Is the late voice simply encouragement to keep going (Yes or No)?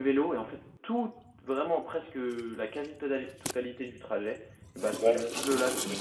Yes